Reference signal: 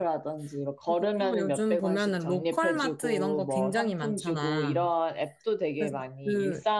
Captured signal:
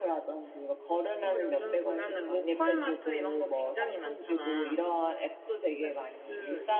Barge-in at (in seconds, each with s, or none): none